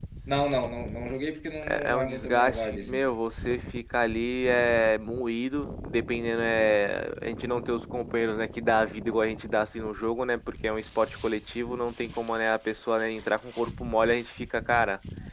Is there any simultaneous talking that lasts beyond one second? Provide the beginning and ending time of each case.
1.7-3.1

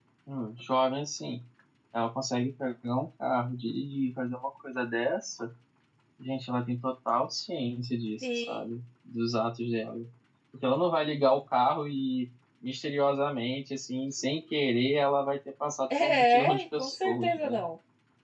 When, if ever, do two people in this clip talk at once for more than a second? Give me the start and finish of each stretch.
16.0-17.5

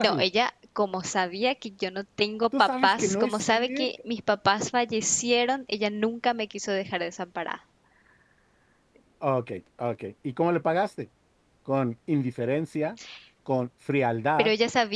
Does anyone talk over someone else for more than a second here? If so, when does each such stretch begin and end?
2.6-3.9

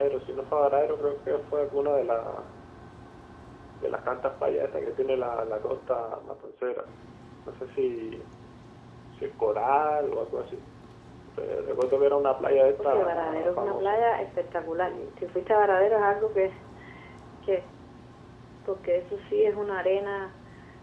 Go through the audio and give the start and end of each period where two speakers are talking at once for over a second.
12.5-14.0

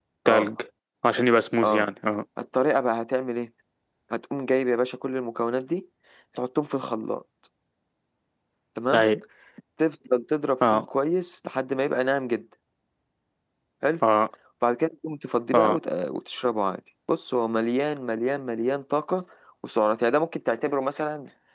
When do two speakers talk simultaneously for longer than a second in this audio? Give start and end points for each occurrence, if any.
none

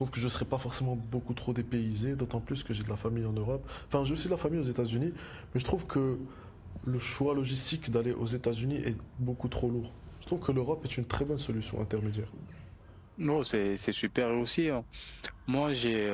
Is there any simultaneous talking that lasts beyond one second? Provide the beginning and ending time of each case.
none

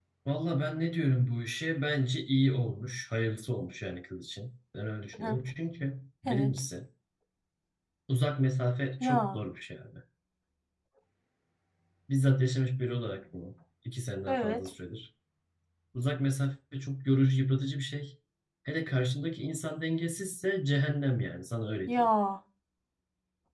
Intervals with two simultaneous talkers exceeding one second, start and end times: none

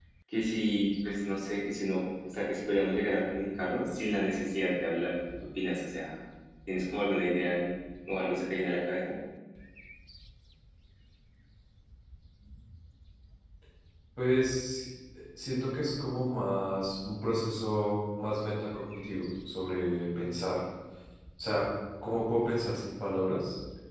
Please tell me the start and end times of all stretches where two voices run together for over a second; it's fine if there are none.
none

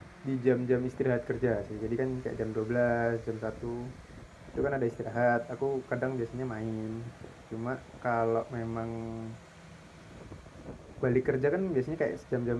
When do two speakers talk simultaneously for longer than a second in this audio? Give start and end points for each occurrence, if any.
none

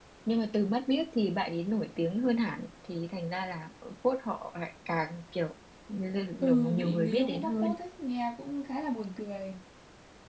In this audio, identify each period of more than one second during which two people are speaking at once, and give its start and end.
6.4-7.8

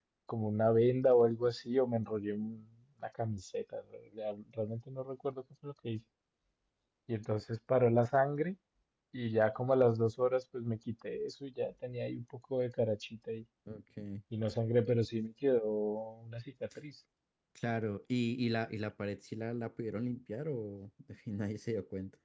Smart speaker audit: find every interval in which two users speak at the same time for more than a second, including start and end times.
none

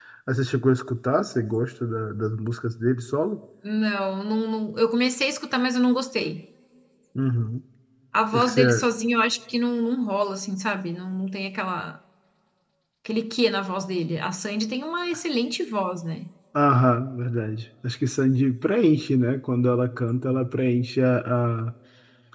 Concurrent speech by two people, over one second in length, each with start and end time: none

